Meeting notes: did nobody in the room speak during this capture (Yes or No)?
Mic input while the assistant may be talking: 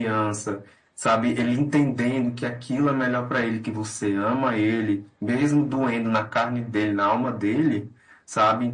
Yes